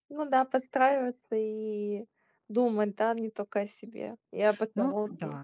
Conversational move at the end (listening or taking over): taking over